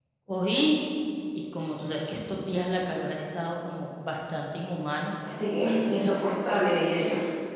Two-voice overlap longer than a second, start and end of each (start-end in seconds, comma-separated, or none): none